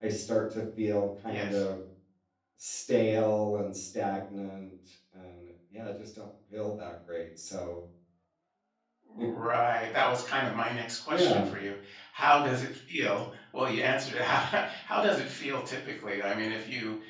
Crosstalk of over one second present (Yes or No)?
No